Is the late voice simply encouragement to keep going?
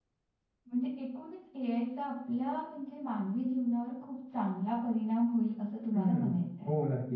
No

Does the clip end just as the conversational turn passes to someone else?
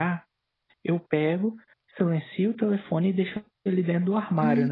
Yes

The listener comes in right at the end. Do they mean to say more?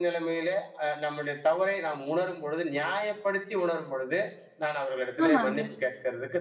No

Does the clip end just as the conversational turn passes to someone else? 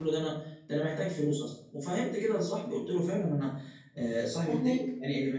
No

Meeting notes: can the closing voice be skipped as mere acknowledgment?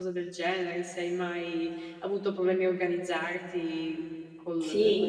No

